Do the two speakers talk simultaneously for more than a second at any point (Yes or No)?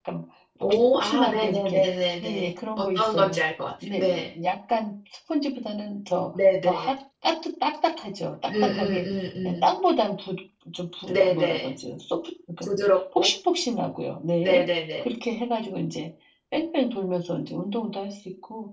Yes